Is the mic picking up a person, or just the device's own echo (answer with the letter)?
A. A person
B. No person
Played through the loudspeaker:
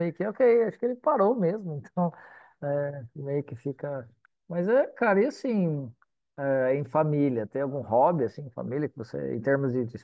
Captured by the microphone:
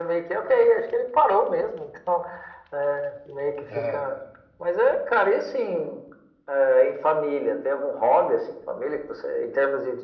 A